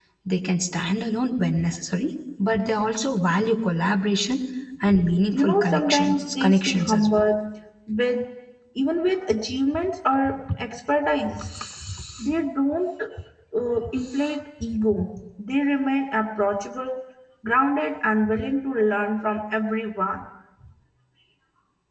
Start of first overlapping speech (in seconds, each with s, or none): 5.3 s